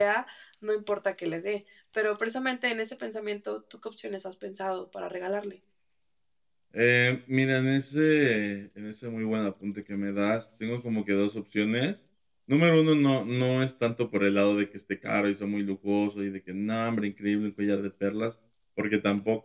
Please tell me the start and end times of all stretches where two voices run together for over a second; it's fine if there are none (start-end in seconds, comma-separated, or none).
none